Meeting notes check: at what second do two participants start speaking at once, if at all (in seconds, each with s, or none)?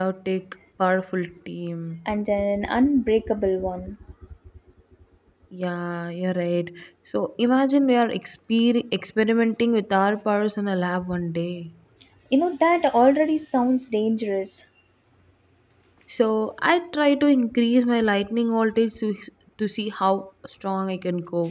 none